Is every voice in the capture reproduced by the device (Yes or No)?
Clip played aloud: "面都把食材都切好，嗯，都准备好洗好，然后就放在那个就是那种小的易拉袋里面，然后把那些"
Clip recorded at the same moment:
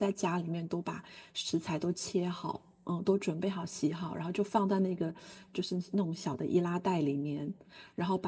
Yes